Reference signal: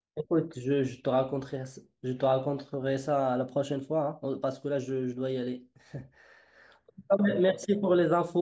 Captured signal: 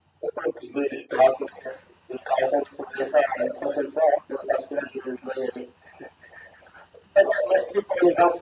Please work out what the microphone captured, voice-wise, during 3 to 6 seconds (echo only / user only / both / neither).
echo only